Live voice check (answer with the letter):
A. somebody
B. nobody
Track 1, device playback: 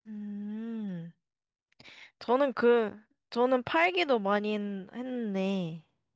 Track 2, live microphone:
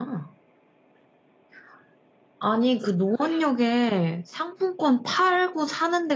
A